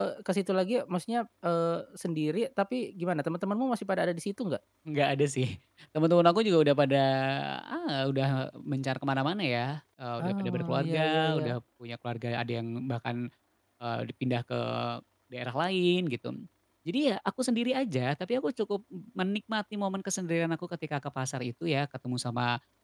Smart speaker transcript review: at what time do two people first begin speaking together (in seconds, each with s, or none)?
10.2 s